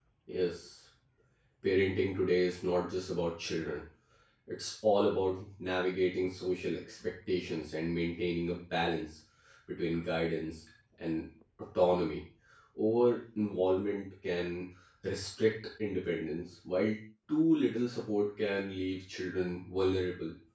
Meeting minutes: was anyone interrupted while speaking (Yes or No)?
No